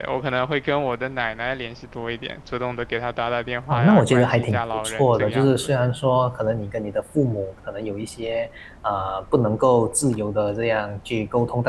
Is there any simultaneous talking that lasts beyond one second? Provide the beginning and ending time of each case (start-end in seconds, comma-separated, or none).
3.7-5.5